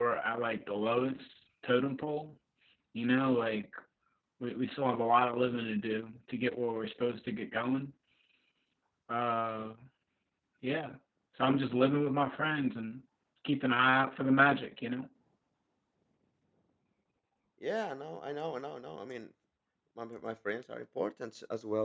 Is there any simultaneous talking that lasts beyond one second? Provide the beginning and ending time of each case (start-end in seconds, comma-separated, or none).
none